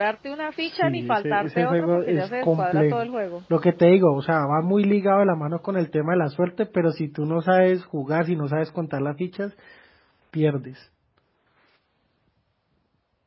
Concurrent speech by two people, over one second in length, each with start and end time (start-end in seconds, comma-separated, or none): 0.6-3.0